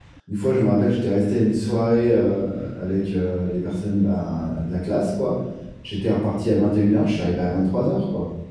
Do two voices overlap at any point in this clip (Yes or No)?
No